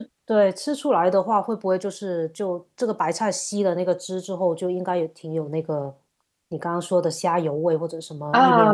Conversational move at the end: taking over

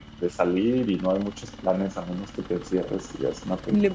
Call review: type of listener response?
taking over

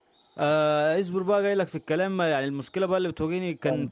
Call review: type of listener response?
listening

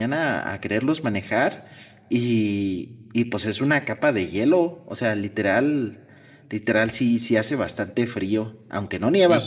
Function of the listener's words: taking over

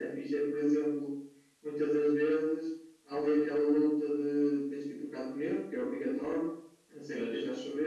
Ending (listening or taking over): listening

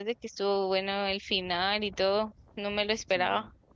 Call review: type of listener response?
taking over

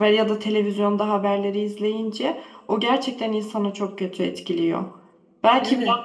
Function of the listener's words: listening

